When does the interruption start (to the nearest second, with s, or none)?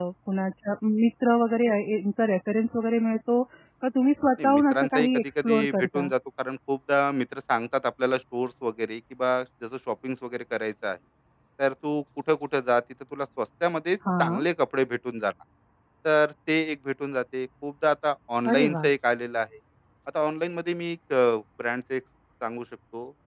4 s